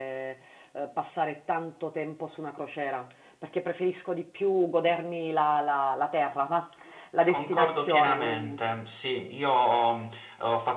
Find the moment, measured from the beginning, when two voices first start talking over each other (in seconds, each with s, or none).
7.3 s